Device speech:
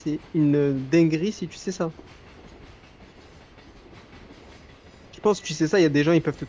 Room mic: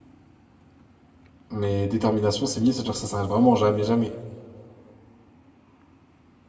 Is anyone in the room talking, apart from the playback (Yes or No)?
Yes